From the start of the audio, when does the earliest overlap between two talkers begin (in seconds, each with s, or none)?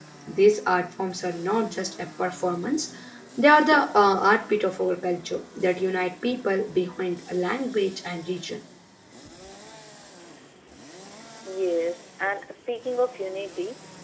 none